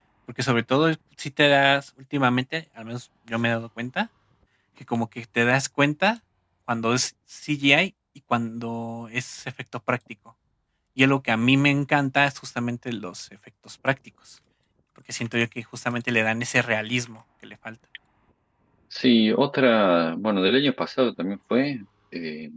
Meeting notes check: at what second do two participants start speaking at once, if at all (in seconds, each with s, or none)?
none